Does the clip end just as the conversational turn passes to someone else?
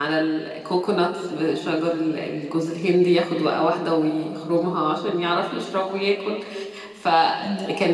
No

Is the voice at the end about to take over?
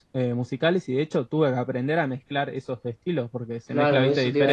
Yes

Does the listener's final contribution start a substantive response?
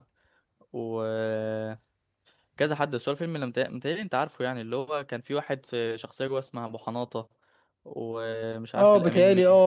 Yes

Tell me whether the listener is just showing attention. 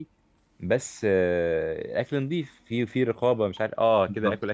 Yes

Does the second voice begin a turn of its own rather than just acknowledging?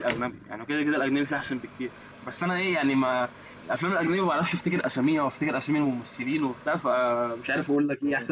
Yes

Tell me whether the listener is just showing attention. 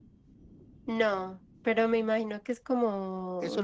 No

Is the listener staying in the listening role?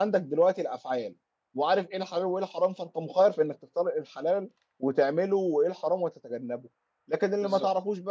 Yes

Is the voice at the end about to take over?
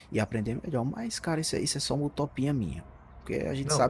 Yes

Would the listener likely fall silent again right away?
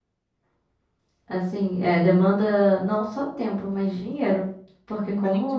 No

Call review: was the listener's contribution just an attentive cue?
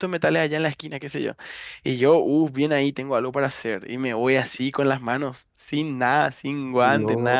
Yes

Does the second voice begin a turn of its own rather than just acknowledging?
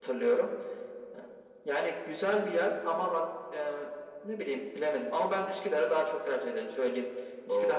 Yes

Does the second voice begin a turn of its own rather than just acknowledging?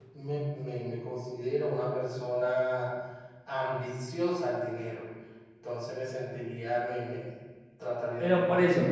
Yes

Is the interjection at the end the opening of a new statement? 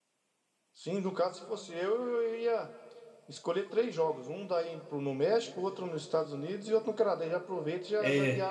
Yes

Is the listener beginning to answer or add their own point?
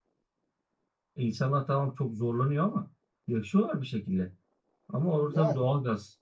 No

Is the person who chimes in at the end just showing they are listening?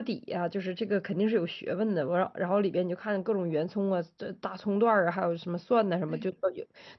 Yes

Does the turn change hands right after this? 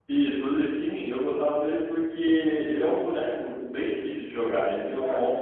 No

